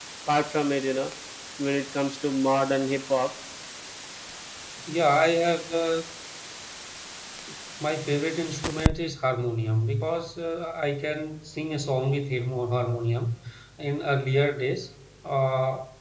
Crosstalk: none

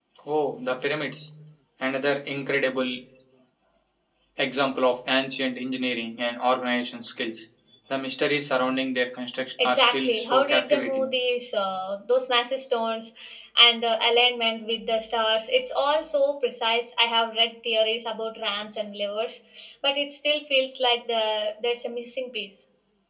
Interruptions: present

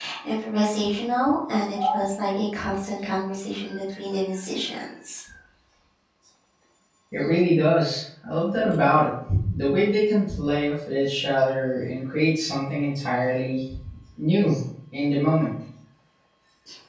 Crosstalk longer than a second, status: none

